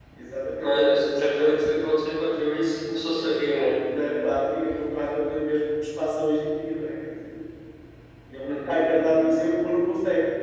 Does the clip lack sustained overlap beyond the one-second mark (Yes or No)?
Yes